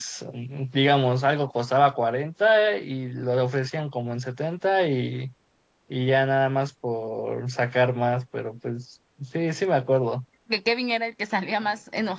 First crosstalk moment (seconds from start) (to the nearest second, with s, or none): none